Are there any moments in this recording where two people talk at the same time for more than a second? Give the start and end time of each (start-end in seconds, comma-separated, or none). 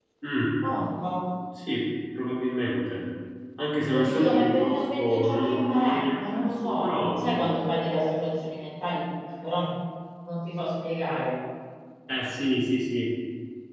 3.9-7.5